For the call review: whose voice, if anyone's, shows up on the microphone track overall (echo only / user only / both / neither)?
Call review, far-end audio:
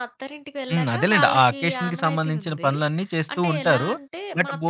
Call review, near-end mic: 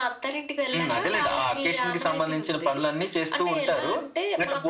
echo only